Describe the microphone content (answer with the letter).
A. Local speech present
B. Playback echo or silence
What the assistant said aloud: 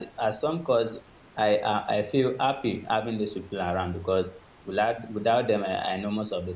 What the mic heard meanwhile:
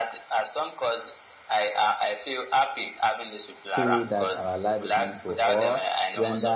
A